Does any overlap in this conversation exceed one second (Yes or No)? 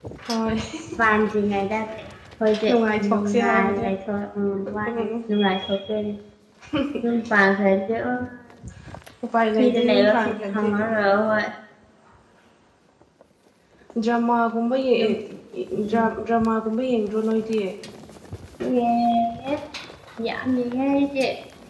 Yes